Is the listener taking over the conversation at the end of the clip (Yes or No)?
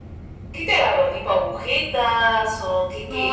Yes